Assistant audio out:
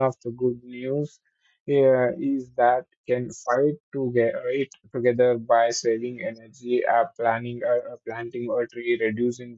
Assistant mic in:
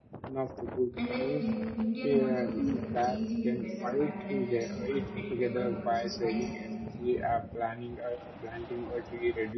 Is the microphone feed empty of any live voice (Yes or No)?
No